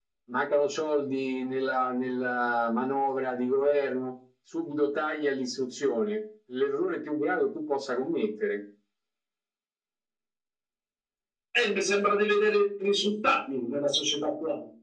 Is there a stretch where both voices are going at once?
No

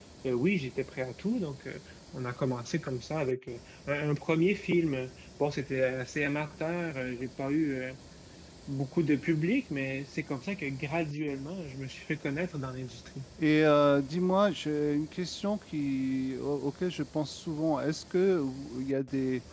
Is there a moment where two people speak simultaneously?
No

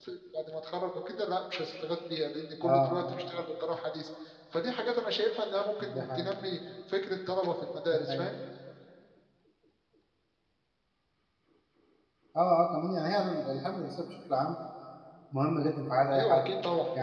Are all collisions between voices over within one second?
Yes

